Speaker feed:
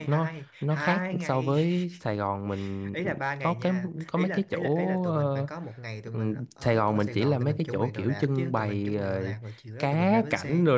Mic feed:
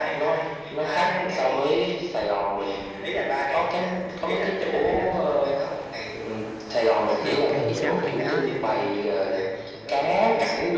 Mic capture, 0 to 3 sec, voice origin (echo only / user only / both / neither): echo only